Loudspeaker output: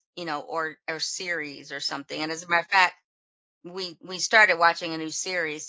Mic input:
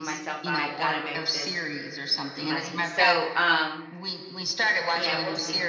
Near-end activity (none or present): present